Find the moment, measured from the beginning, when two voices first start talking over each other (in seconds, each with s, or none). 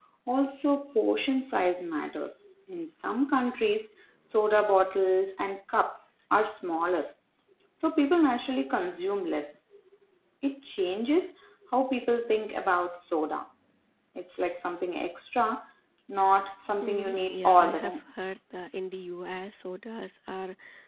16.8 s